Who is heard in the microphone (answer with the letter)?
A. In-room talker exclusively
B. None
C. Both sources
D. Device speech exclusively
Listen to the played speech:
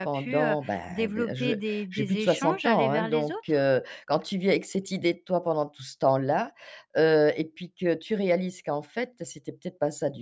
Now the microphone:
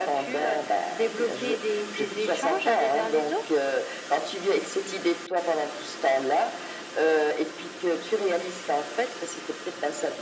D